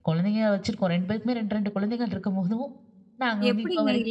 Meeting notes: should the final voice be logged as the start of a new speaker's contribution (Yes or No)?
Yes